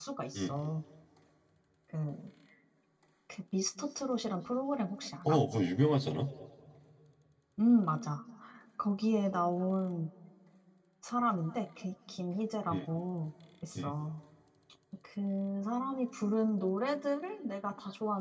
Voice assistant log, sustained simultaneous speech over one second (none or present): none